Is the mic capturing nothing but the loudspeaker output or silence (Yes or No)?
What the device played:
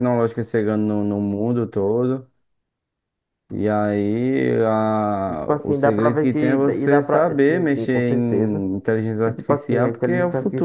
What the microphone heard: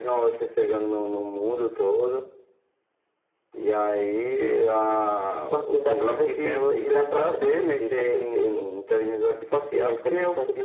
Yes